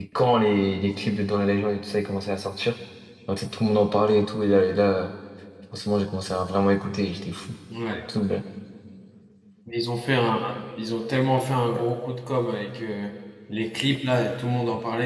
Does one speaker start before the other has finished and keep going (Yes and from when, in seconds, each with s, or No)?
No